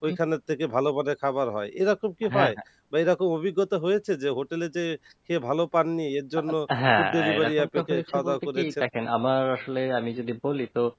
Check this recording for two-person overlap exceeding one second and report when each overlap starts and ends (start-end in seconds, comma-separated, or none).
7.0-8.8